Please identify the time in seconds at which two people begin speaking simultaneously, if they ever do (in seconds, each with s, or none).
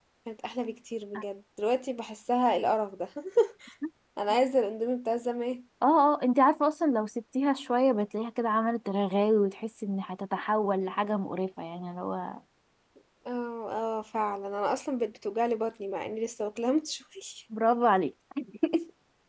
none